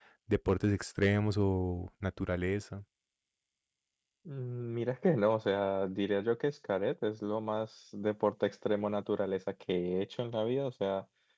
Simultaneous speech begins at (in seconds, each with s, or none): none